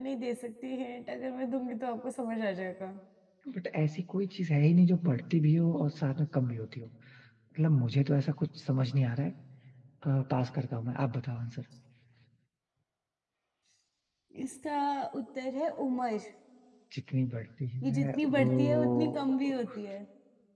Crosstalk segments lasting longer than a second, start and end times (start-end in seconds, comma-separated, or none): 17.8-19.5